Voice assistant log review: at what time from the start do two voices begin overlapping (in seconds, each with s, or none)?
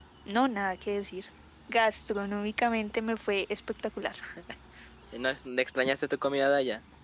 none